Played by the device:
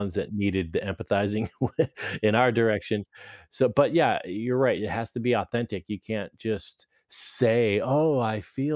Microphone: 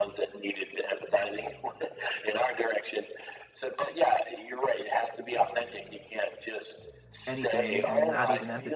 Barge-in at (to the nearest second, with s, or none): 7 s